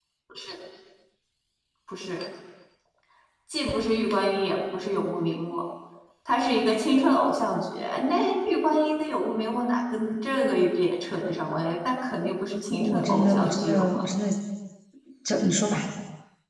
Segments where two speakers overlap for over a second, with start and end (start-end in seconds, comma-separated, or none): 12.7-14.0